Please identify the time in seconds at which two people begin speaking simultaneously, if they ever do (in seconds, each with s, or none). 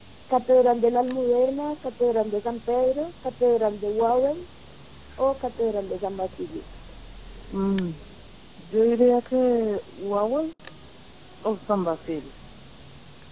none